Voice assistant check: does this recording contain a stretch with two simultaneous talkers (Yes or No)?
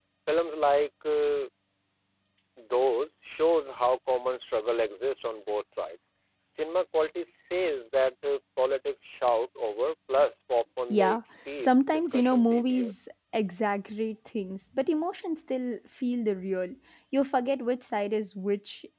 Yes